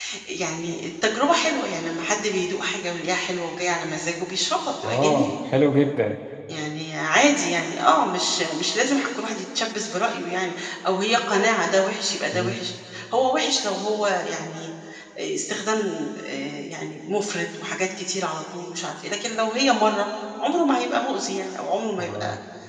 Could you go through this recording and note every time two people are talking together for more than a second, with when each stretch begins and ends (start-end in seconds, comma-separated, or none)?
none